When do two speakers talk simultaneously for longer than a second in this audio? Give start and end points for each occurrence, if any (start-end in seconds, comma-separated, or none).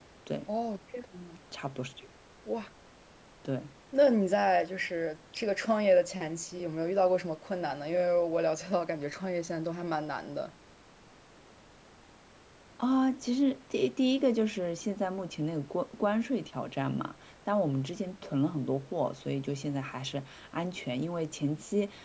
none